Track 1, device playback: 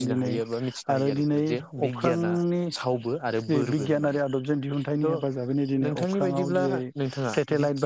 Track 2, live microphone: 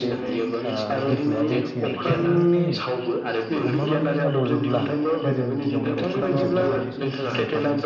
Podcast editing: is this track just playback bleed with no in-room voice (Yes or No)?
No